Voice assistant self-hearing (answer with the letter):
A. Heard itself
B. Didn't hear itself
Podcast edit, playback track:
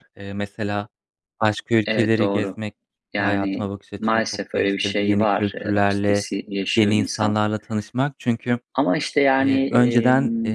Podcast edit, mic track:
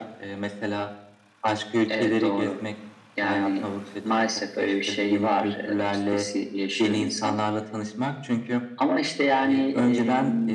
A